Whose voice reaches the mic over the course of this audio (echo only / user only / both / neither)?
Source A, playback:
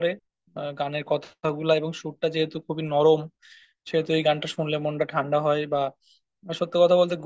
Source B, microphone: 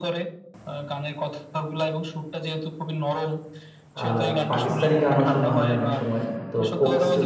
both